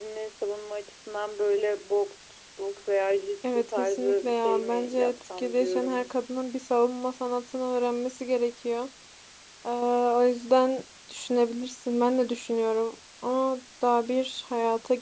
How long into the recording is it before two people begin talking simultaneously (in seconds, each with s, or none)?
3.4 s